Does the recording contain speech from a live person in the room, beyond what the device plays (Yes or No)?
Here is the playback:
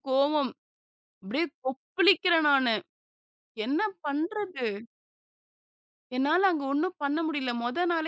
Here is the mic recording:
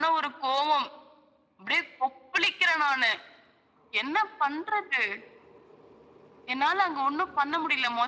No